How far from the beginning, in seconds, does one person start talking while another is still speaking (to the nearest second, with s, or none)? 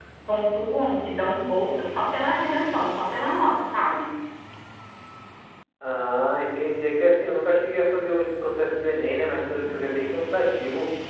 none